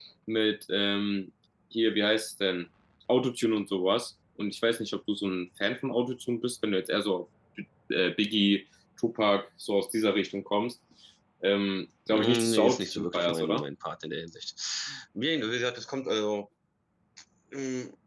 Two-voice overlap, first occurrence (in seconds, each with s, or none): 12.1 s